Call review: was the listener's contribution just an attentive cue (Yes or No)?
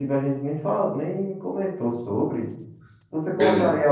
Yes